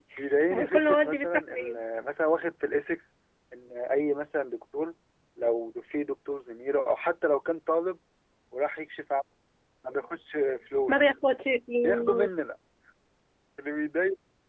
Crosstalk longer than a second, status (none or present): present